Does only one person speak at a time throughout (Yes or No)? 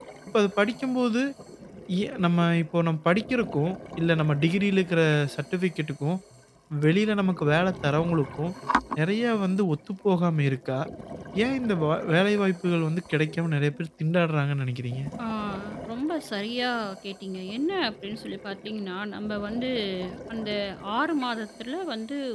Yes